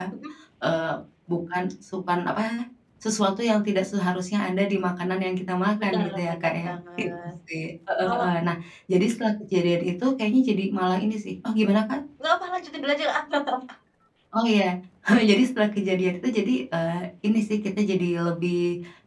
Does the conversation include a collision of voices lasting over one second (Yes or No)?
Yes